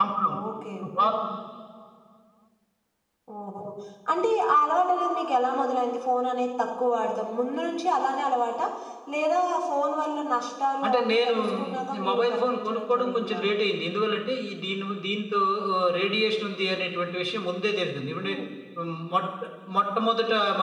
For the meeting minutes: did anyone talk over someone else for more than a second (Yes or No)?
Yes